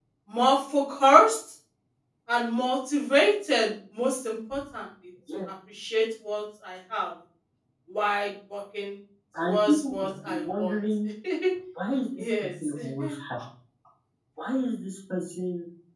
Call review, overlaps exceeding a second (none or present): present